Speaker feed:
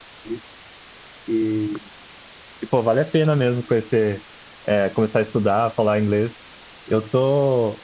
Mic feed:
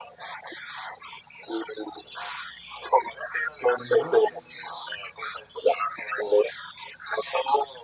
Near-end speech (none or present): present